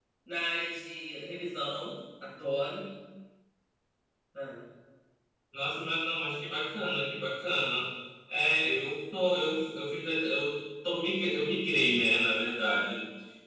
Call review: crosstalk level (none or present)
none